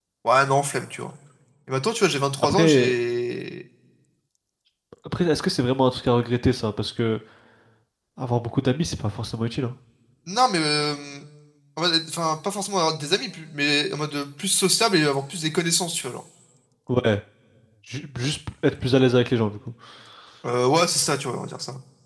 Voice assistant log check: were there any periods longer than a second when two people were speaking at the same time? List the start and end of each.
none

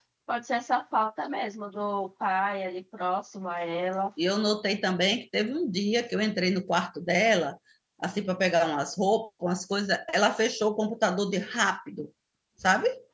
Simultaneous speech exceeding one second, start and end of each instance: none

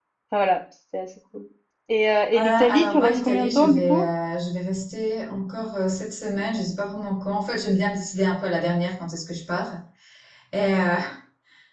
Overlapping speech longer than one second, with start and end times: 2.3-4.0

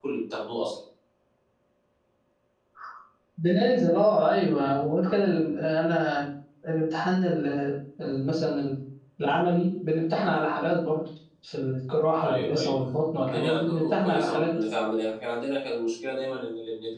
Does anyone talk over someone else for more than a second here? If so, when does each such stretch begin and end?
13.2-14.5

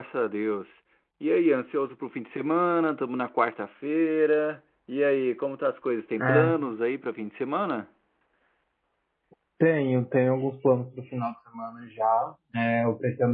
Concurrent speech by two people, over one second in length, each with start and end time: none

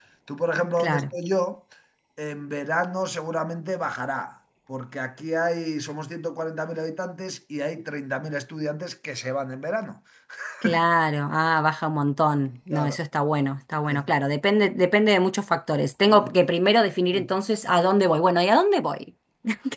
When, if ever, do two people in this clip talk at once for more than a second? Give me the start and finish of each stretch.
none

